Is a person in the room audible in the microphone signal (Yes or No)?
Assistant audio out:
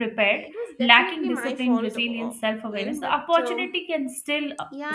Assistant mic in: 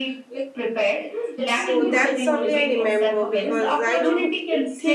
Yes